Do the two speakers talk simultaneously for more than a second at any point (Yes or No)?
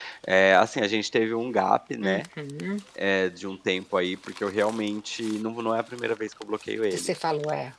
No